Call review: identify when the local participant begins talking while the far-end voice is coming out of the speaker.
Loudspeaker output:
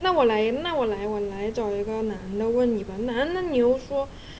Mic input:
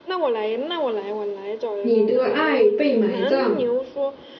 1.8 s

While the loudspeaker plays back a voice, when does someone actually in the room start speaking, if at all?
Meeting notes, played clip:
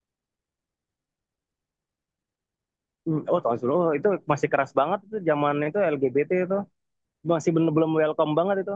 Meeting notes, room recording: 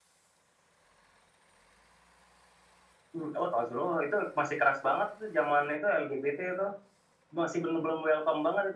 none

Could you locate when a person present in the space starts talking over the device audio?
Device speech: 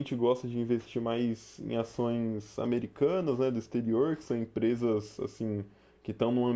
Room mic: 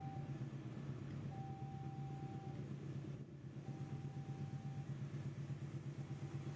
none

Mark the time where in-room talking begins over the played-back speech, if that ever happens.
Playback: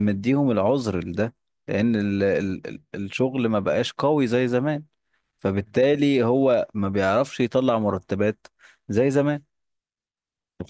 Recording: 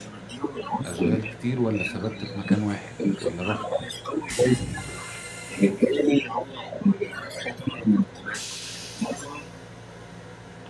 0.9 s

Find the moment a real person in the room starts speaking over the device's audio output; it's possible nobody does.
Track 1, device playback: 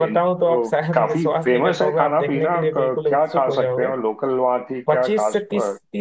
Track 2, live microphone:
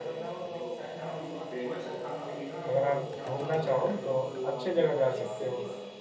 2.7 s

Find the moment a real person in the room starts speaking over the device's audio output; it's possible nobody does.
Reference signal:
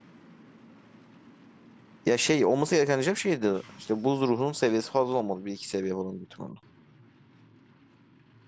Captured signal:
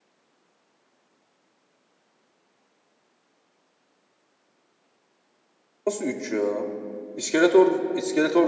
5.9 s

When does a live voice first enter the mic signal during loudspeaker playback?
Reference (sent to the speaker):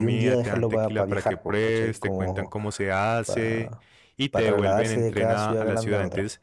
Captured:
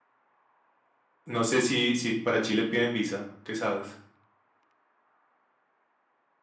1.2 s

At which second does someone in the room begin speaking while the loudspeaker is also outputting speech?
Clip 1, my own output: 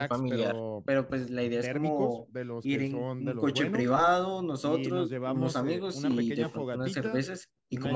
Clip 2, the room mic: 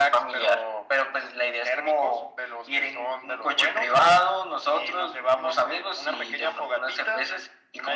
none

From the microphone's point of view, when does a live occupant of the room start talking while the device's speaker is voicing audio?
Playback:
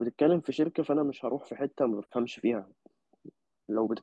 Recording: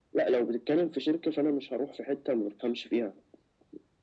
none

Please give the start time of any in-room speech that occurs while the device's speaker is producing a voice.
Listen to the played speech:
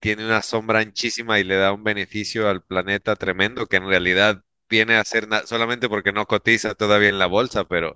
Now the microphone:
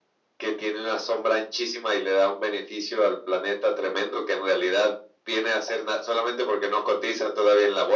none

